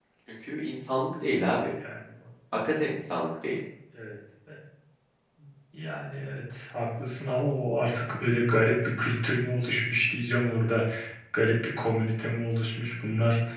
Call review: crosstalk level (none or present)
none